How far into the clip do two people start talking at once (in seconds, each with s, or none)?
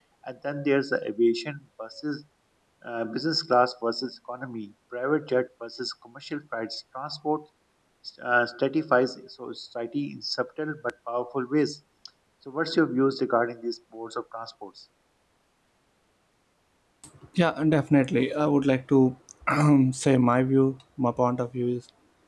none